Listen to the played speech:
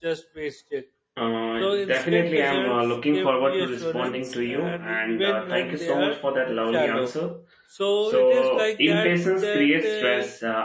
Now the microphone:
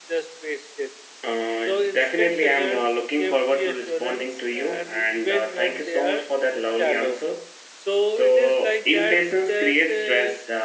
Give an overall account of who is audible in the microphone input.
echo only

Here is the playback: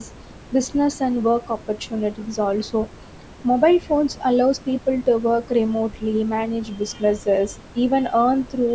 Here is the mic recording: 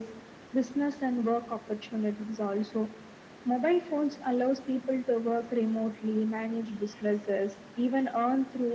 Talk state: echo only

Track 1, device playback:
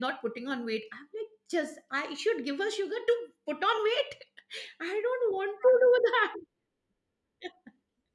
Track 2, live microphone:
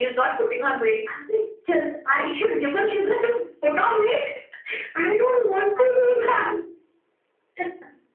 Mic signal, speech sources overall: echo only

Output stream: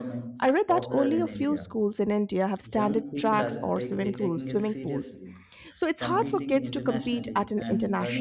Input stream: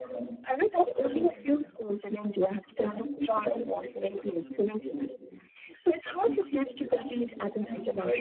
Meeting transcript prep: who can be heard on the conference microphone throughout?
echo only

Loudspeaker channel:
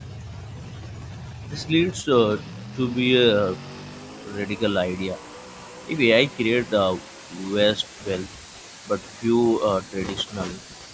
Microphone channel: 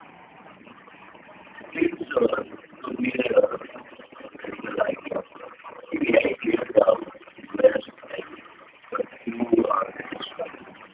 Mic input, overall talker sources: echo only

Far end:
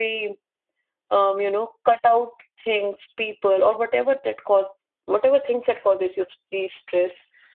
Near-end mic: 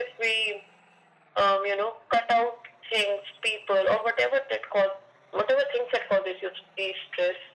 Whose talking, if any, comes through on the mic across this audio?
echo only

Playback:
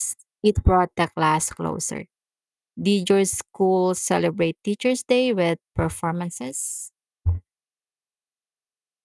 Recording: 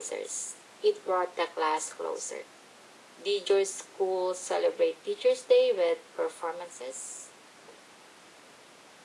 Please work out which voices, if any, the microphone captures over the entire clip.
echo only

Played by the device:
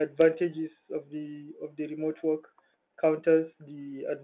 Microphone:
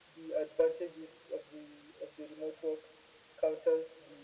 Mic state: echo only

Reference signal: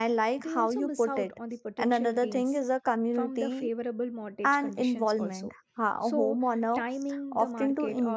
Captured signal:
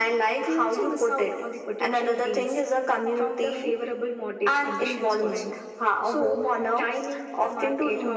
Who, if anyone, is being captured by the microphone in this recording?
echo only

